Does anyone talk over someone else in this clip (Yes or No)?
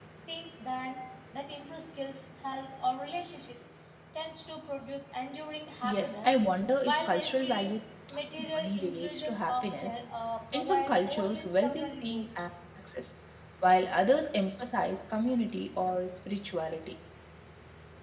Yes